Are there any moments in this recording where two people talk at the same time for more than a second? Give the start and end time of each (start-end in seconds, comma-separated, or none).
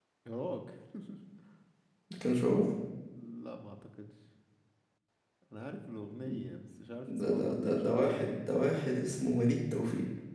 7.2-8.4